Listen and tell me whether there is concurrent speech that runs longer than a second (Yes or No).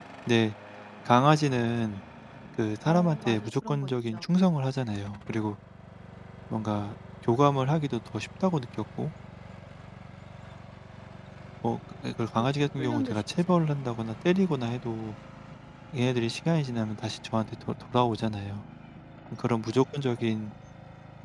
Yes